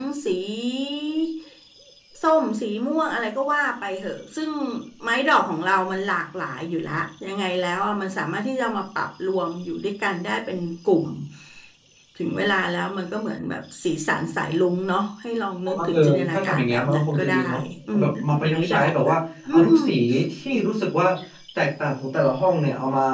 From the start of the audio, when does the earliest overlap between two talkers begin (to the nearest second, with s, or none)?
16 s